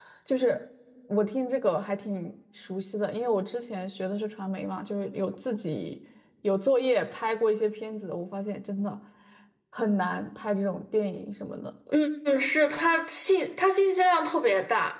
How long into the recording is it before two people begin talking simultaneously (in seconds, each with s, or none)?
none